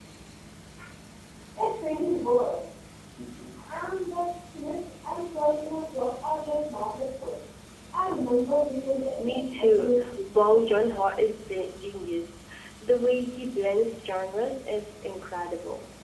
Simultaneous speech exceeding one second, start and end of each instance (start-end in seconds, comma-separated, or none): 9.2-10.6